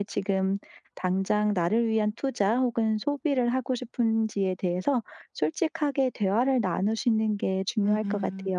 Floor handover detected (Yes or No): Yes